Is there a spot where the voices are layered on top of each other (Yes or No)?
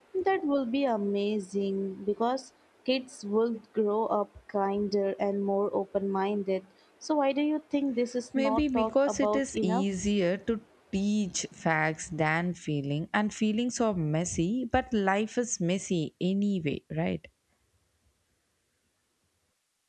Yes